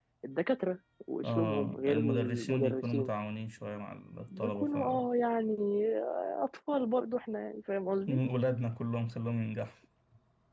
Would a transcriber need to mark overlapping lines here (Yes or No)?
Yes